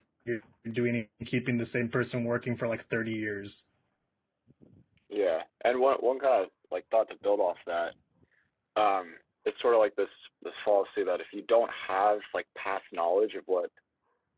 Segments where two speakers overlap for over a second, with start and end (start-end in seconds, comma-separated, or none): none